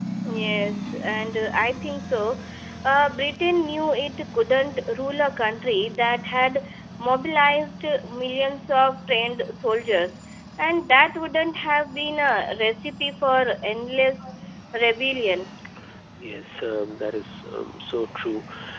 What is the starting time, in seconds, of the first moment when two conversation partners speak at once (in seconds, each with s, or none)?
none